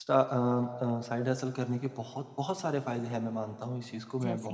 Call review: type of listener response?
listening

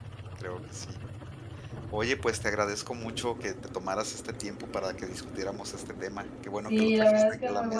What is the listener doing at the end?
taking over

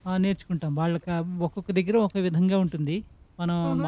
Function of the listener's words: taking over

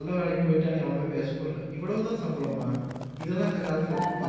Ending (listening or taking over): listening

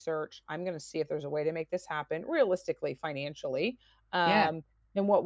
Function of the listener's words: listening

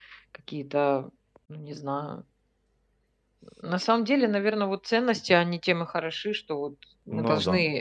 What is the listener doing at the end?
listening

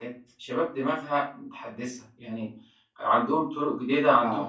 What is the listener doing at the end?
listening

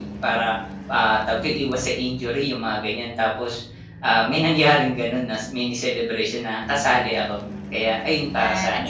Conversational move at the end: taking over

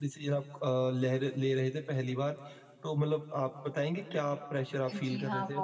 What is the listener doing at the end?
taking over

